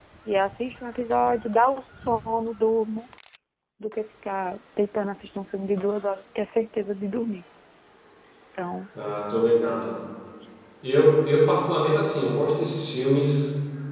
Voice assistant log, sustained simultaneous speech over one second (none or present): none